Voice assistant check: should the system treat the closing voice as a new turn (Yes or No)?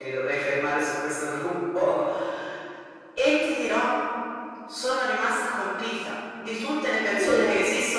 No